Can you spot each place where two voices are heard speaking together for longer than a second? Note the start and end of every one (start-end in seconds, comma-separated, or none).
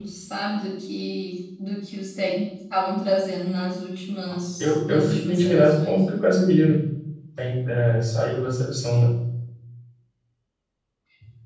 4.6-6.0